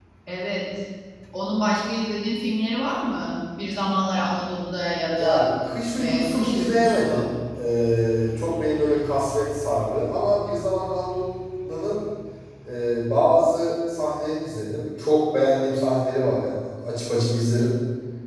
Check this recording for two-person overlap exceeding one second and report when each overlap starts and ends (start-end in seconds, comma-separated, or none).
6.0-7.3